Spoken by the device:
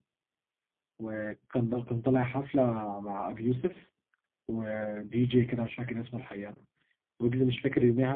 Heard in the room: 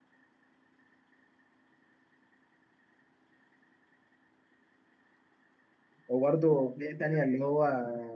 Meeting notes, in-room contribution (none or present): present